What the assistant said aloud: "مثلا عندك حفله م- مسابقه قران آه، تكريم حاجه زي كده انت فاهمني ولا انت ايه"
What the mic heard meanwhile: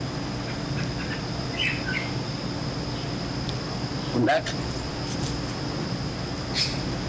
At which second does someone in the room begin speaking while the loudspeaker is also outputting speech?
4 s

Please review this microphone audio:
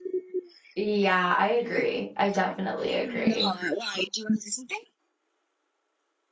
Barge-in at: 1 s

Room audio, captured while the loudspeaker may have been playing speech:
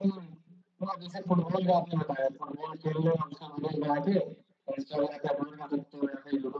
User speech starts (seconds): none

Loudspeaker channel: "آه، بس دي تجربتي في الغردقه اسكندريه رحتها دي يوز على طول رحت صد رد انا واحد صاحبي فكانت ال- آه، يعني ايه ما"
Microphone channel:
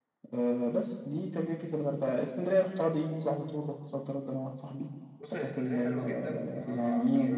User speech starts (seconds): 5 s

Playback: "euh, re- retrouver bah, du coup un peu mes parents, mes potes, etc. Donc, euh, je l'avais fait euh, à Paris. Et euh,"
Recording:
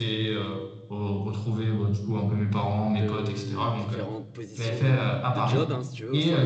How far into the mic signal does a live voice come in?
3 s

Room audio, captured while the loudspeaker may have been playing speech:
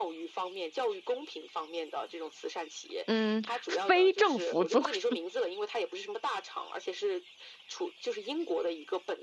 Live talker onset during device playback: 3 s

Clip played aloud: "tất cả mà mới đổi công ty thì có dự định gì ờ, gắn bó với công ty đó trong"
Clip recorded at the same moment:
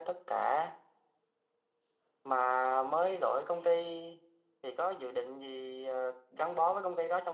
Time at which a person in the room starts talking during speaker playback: none

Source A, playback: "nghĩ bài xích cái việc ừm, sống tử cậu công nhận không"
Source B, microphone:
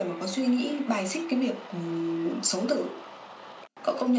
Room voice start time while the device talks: none

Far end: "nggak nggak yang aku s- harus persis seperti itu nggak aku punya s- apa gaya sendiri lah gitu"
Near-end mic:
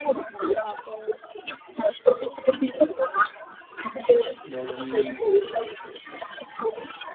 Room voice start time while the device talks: 5 s

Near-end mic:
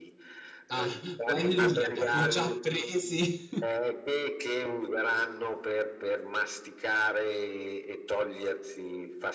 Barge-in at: 1 s

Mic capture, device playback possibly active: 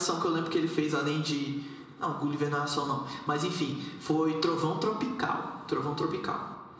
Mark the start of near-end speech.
none

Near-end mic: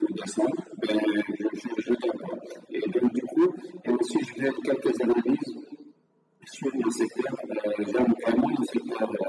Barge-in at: none

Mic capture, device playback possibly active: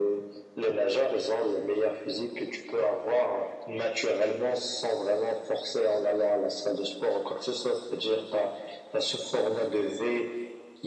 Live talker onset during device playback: none

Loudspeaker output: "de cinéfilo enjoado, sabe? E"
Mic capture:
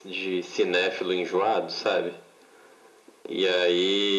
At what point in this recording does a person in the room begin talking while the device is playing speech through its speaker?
none

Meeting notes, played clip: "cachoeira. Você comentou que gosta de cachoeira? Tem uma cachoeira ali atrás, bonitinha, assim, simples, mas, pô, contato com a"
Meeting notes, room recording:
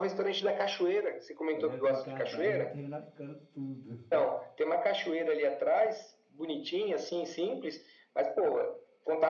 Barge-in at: 2 s

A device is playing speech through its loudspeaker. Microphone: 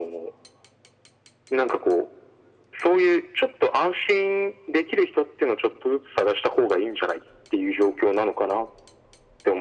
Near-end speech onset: none

